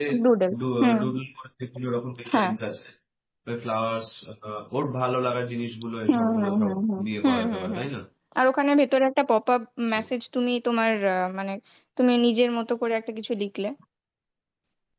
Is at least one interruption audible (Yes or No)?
Yes